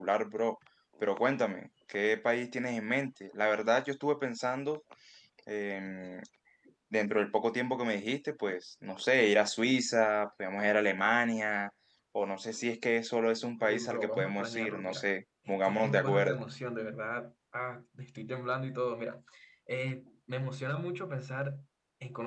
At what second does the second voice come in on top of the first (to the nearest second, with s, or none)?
14 s